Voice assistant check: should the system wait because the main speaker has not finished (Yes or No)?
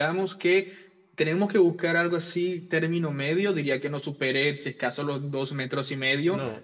Yes